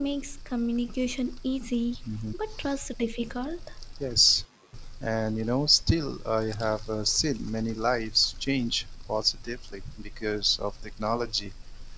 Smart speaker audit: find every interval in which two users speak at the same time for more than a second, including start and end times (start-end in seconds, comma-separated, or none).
none